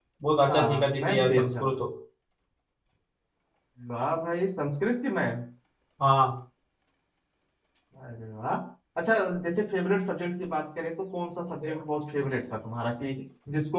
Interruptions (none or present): present